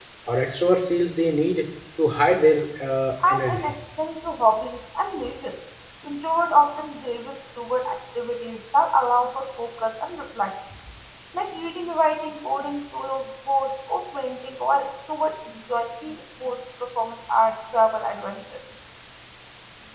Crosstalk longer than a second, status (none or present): none